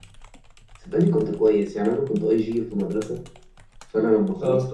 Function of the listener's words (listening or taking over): listening